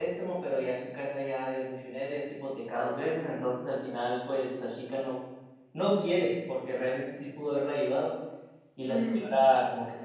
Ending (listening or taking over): listening